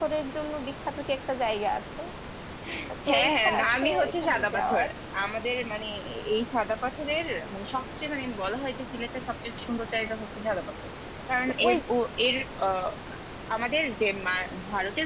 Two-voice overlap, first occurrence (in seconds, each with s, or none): 3.1 s